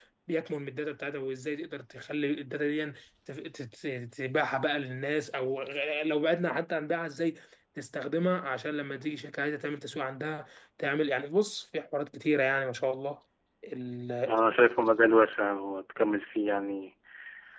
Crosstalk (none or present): none